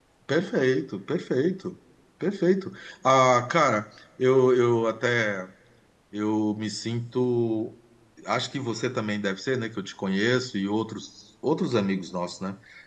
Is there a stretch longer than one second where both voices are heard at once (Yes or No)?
No